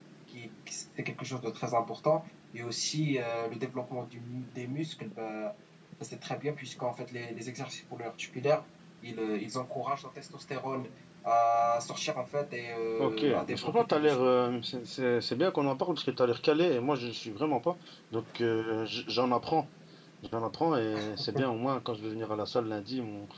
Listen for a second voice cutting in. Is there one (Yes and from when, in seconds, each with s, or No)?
Yes, from 13.0 s